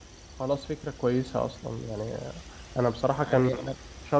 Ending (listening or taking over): listening